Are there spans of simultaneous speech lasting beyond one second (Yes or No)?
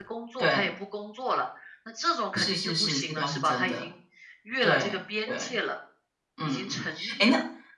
Yes